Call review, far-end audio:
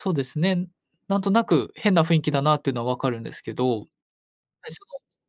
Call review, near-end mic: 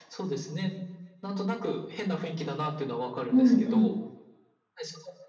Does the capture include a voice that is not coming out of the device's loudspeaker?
Yes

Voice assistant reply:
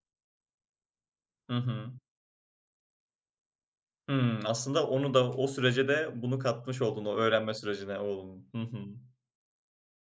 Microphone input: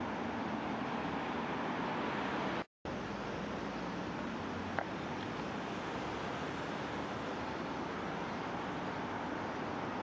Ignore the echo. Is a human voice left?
No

